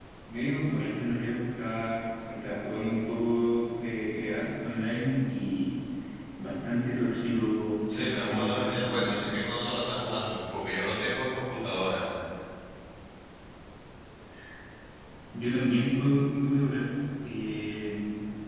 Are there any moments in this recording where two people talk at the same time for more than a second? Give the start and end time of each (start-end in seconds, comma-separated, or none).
7.9-9.3